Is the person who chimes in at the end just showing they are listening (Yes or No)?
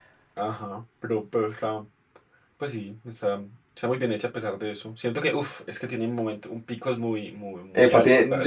No